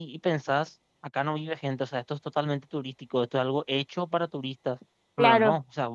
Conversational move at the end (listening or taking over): listening